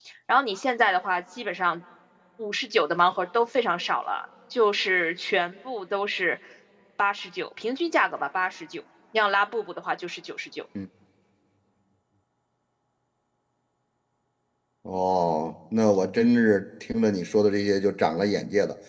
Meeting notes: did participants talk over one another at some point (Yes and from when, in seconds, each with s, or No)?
No